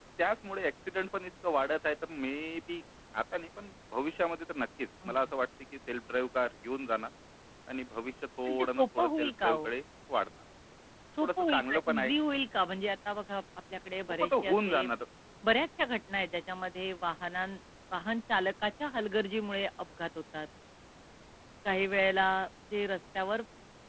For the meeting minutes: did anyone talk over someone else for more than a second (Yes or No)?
Yes